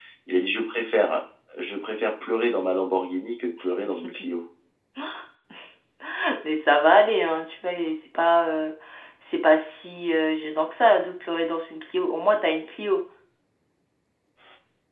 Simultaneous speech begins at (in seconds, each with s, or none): none